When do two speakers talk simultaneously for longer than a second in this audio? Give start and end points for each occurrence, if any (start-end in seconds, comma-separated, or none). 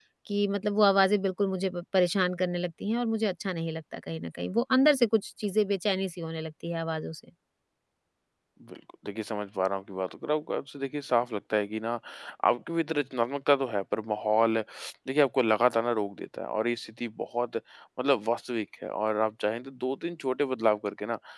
none